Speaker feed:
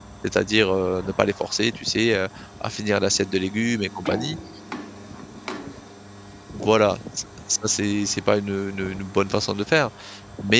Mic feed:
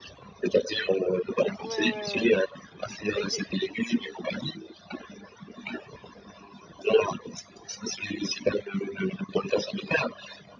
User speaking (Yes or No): Yes